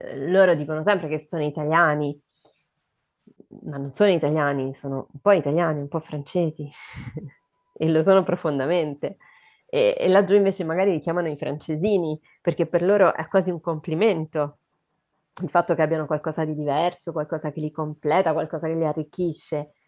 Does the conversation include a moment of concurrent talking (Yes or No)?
No